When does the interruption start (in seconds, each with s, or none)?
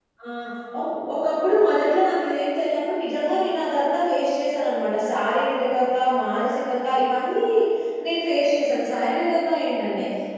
none